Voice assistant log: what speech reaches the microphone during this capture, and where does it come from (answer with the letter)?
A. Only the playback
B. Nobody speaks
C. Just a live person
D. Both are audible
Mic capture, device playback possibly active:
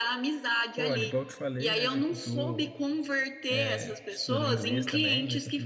D